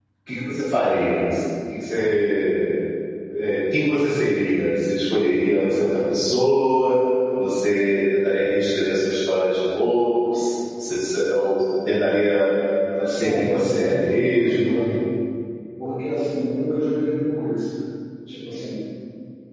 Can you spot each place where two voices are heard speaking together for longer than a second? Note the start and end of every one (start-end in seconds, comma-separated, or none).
13.2-14.8